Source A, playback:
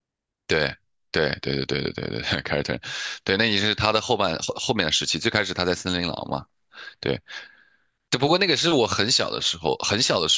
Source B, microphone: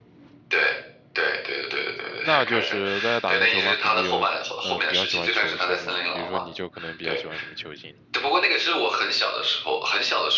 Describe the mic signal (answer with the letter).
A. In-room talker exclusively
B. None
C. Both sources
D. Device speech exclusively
C